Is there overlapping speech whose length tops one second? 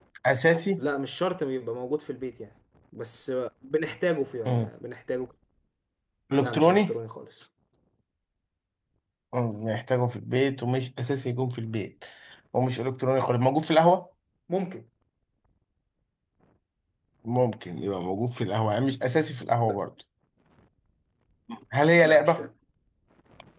No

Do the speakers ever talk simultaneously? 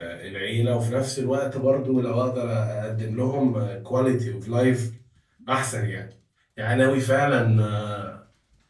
No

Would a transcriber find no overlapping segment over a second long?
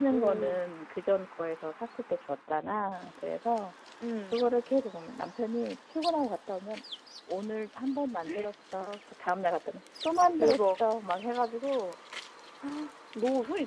Yes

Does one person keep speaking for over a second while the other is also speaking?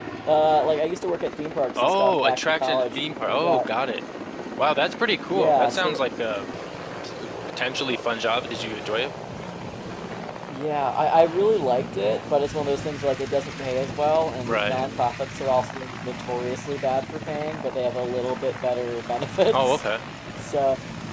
Yes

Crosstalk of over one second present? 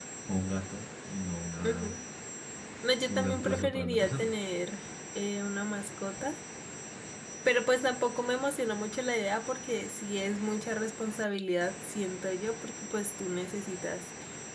Yes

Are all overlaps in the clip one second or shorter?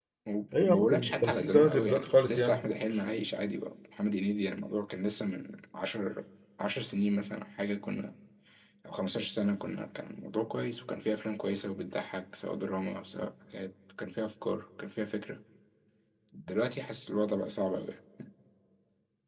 No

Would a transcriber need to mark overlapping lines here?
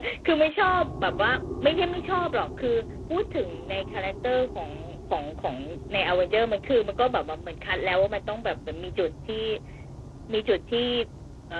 No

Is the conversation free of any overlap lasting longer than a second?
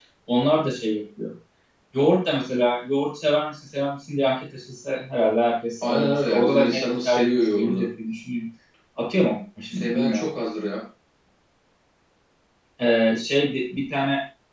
No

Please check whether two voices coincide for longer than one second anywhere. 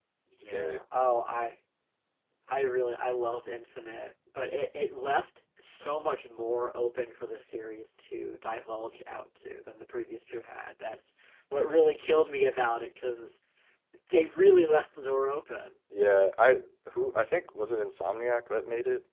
No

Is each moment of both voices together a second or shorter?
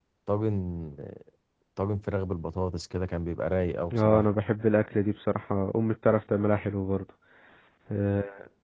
Yes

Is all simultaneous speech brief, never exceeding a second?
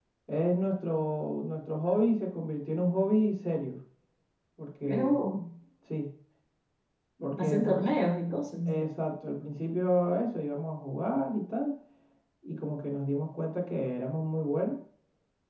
Yes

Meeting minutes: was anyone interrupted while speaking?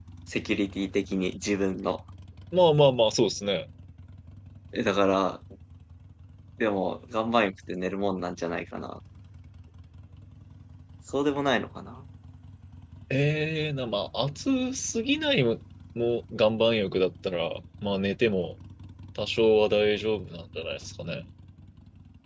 No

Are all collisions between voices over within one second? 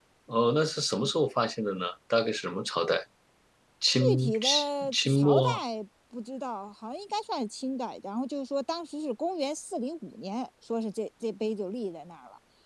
No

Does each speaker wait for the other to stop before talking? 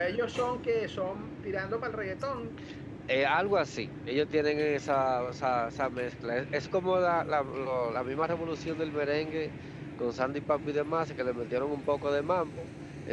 Yes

